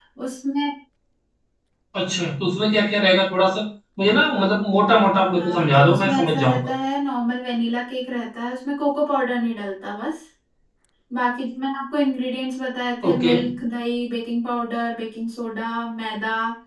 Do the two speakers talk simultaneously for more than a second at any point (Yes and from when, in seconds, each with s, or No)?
Yes, from 5.3 s